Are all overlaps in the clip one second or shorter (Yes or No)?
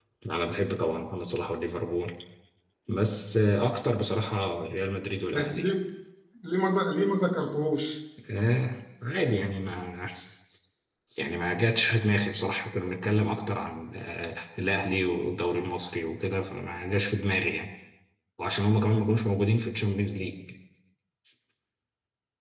Yes